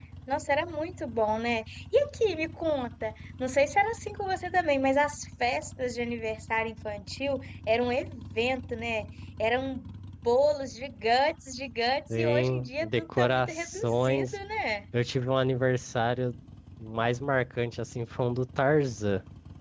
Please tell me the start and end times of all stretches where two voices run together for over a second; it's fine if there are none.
12.1-14.3

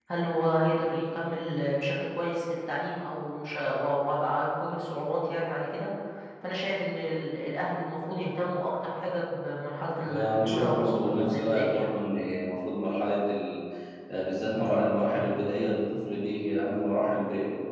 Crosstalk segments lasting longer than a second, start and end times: 10.1-11.9

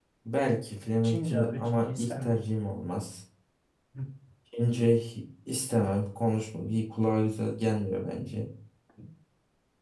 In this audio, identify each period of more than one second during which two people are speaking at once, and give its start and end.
1.0-2.4

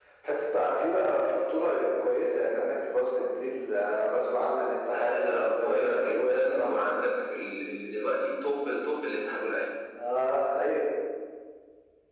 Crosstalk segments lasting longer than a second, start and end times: 4.9-6.8

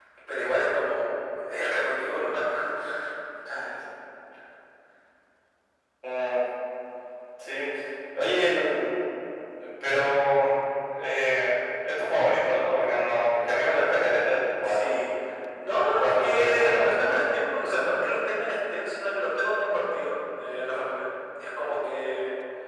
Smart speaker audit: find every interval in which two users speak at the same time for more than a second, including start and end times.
15.8-17.2

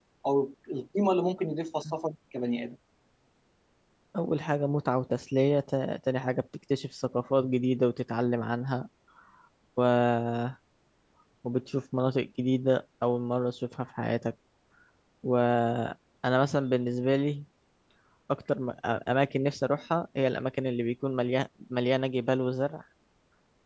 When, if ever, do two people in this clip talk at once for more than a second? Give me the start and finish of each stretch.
none

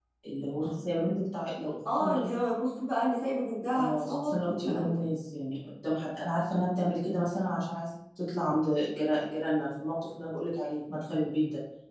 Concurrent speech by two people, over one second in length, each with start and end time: 3.7-5.0

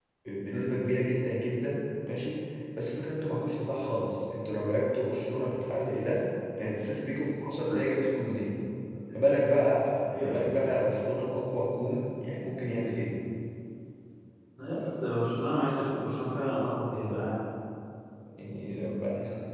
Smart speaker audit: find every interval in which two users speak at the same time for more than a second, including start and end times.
none

